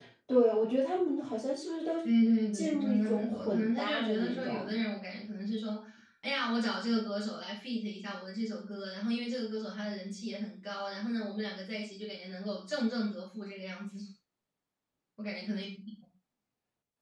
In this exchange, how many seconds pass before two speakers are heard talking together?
2.5 s

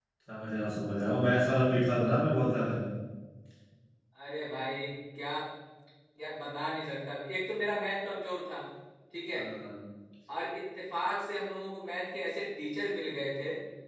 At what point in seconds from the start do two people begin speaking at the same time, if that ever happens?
none

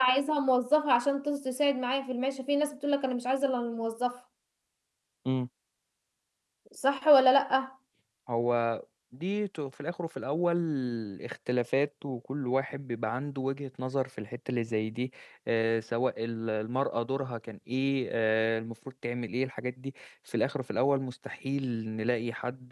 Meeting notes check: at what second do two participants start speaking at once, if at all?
none

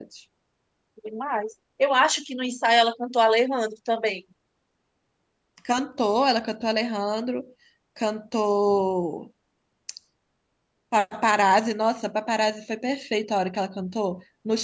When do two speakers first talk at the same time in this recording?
none

